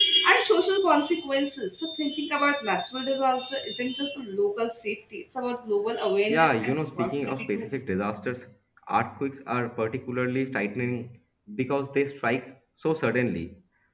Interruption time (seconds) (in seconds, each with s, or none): 6.3 s